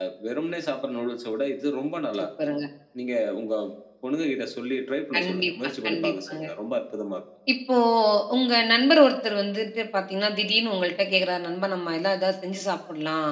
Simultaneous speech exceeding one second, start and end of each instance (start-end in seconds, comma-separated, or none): 5.2-6.5